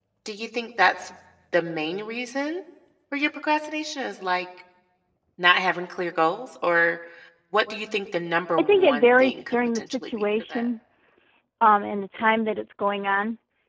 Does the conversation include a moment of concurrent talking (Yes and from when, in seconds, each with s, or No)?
Yes, from 8.6 s